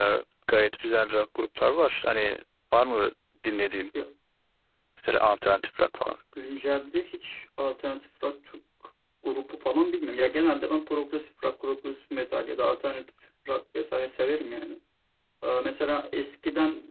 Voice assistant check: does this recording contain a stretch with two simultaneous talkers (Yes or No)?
No